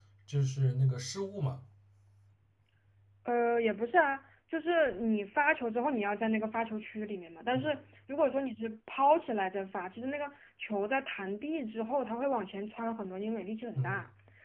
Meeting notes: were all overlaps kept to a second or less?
Yes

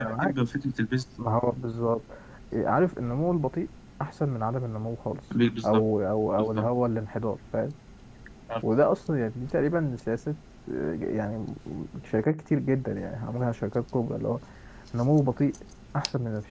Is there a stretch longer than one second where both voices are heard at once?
No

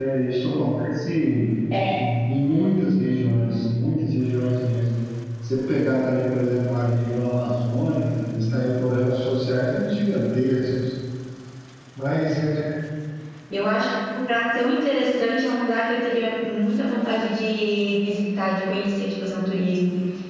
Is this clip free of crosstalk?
Yes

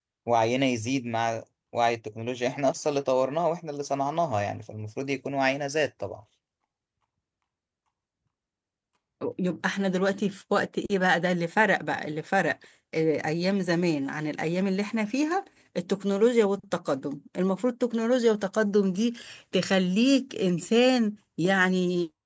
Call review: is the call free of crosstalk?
Yes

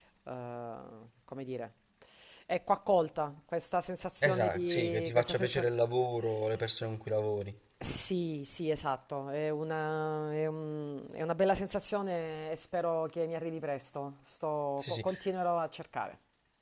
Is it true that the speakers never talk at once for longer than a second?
No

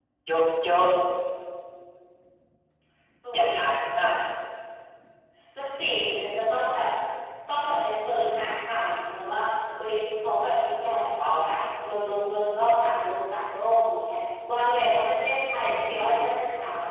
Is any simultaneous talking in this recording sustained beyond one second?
No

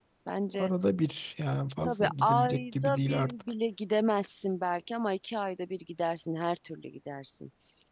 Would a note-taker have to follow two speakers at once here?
Yes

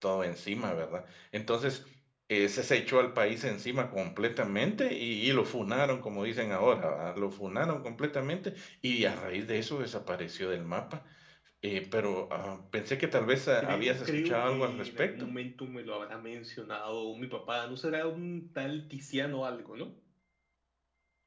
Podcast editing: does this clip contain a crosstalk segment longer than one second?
Yes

